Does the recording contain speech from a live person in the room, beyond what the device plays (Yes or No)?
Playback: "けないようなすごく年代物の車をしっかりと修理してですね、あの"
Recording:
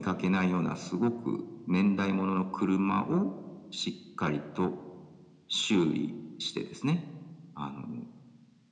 No